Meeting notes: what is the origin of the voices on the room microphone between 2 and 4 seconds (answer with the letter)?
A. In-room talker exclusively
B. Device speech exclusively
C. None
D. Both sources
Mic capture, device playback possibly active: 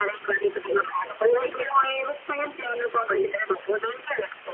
B